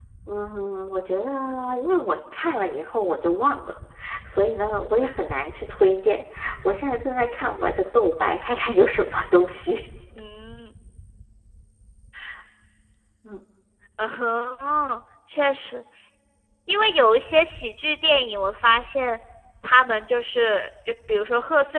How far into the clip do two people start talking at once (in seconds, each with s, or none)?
none